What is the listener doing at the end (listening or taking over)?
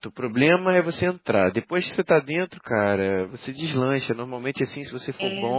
listening